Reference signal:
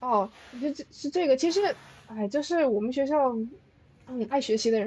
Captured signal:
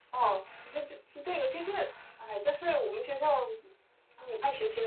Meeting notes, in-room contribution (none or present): none